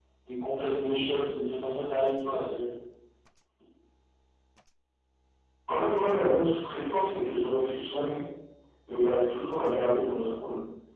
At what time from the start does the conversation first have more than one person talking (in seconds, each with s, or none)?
none